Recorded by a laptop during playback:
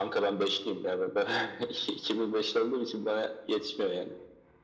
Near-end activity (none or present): none